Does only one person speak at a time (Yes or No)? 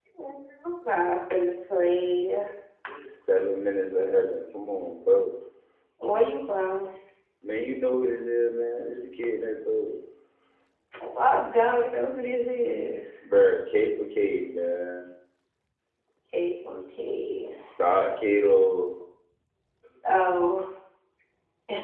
Yes